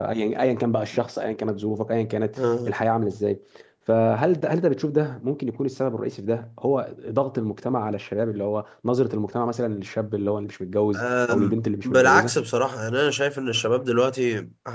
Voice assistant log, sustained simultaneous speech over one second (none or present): present